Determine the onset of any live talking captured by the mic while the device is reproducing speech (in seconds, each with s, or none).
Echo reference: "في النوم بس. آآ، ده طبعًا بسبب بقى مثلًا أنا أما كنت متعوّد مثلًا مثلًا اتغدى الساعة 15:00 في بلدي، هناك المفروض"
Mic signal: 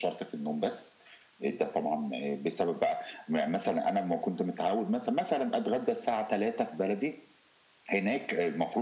none